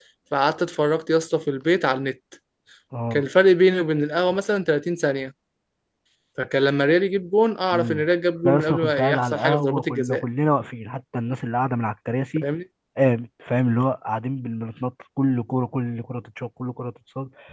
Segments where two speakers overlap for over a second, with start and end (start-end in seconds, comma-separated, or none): 8.4-10.2